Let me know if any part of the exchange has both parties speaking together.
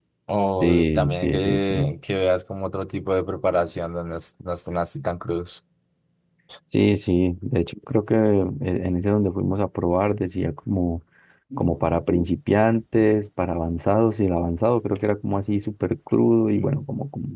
Yes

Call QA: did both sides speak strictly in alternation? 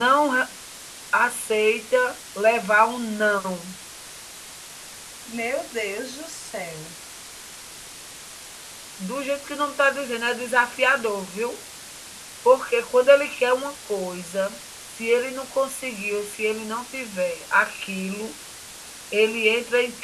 Yes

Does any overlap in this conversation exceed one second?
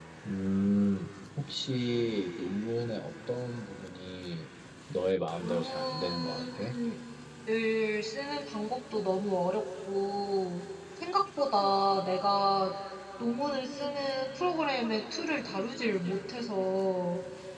Yes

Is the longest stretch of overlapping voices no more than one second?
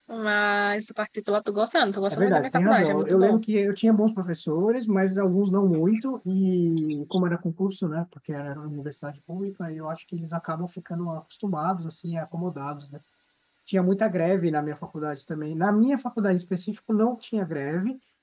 No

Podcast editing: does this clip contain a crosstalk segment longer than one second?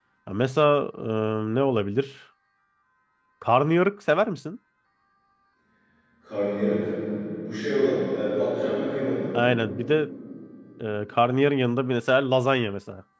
No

